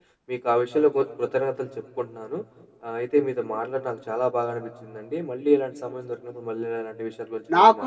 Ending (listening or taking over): taking over